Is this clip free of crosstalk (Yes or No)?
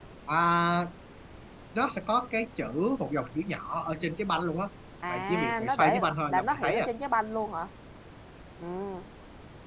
No